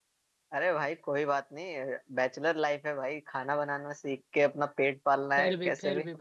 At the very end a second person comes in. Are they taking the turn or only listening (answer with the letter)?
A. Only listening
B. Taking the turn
B